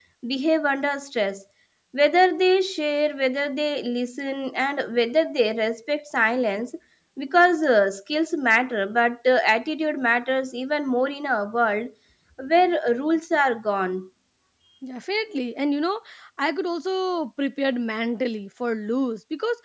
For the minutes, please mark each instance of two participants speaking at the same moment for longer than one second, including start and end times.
none

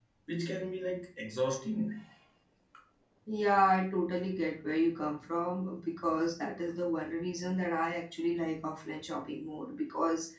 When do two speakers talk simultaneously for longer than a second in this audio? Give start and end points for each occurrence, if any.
none

